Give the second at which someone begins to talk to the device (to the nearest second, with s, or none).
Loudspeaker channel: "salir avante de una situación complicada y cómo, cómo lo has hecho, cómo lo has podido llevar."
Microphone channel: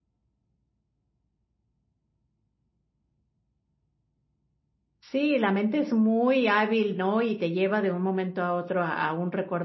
5 s